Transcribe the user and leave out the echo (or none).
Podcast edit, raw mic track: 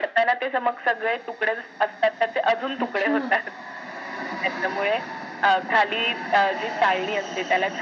अच्छा.